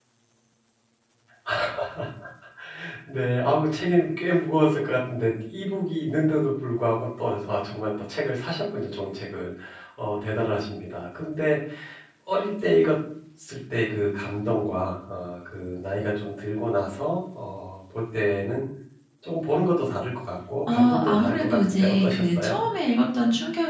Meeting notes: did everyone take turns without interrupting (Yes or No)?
No